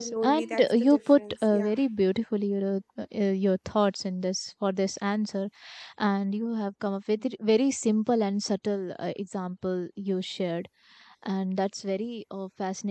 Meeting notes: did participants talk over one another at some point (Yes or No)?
Yes